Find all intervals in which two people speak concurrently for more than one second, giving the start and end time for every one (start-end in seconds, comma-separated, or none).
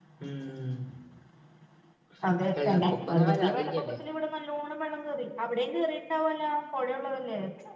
2.6-4.0